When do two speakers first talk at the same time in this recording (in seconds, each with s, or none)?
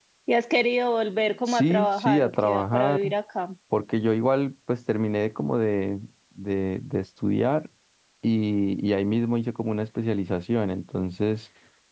1.5 s